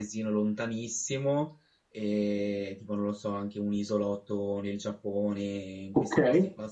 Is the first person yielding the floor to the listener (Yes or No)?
No